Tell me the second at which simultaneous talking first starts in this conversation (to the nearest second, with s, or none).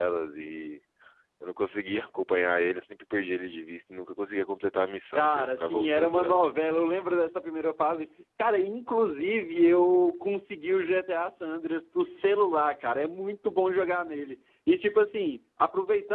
5 s